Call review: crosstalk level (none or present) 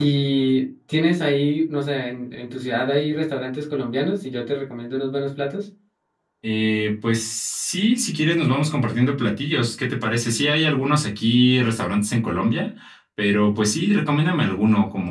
none